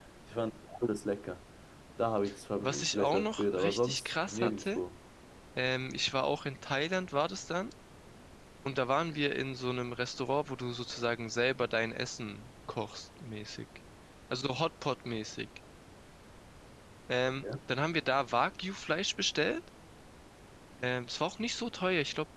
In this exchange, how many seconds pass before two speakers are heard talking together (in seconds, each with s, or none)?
2.9 s